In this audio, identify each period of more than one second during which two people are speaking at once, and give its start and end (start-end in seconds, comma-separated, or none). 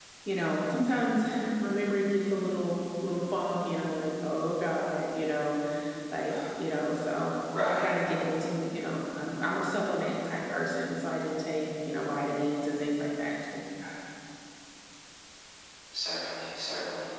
none